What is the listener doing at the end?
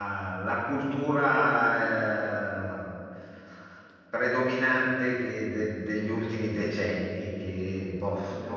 listening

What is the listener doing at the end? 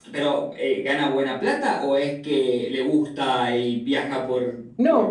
taking over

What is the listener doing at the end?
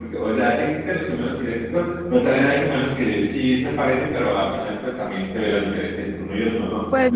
taking over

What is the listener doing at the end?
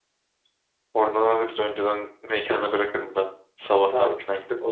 taking over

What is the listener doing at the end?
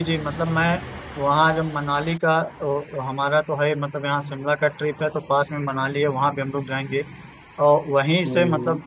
listening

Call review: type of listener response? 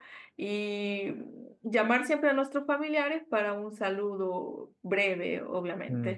taking over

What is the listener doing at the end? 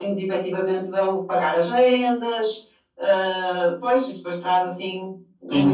taking over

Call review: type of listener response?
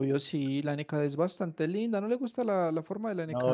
taking over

